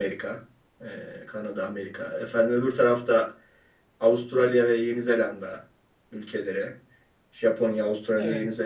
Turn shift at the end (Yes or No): No